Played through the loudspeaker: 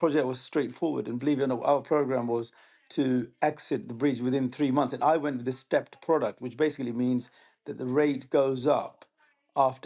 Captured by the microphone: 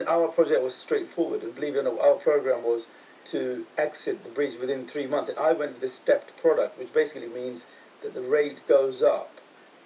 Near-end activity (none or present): none